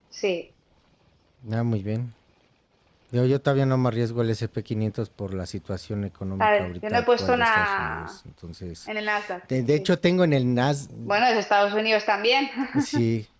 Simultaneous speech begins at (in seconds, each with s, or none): 6.4 s